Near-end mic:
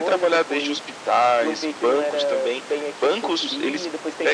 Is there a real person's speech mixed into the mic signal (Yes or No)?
No